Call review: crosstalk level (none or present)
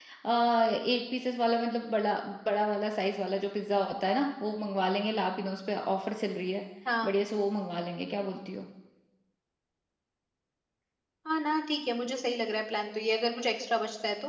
none